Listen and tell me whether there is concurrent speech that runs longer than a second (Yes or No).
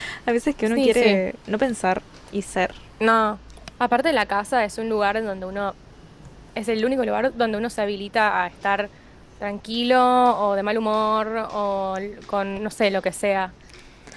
No